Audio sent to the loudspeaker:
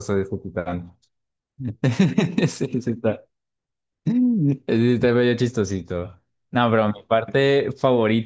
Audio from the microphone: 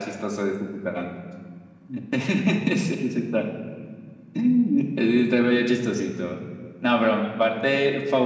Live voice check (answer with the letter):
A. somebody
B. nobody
B